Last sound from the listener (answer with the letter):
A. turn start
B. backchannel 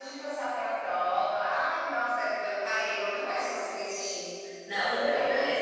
A